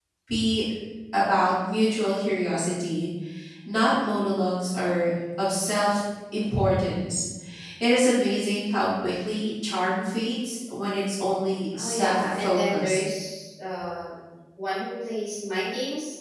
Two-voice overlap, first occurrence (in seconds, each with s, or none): 11.7 s